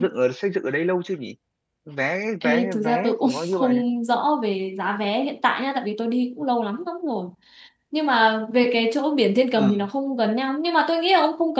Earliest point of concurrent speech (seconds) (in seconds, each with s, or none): 2.4 s